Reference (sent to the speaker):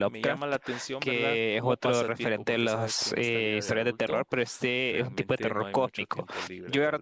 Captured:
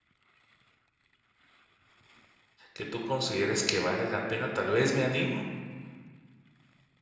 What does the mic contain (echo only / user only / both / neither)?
user only